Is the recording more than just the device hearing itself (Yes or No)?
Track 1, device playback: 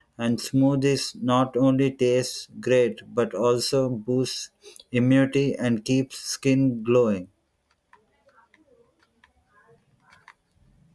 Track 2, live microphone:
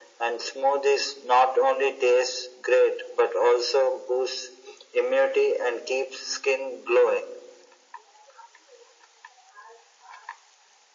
No